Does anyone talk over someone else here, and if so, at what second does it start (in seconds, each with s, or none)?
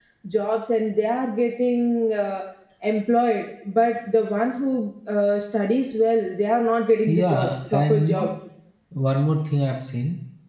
7.1 s